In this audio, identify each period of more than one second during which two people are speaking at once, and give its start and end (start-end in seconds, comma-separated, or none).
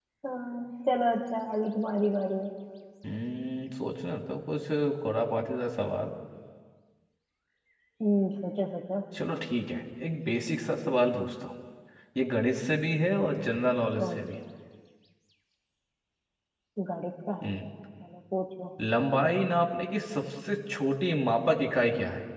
none